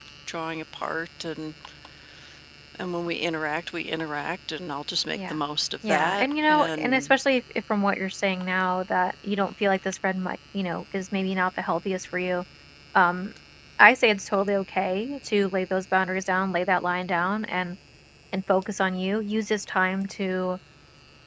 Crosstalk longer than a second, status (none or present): present